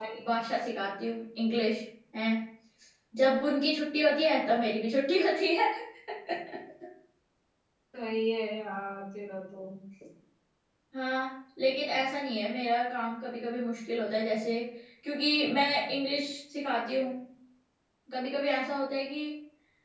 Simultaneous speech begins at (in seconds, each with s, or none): none